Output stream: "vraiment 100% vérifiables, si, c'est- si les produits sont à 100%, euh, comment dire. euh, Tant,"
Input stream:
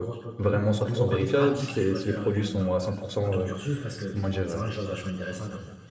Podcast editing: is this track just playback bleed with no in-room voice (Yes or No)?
No